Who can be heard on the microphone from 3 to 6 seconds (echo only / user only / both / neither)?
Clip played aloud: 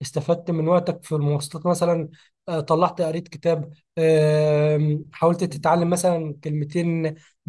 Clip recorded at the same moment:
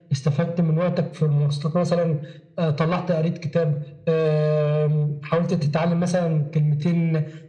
echo only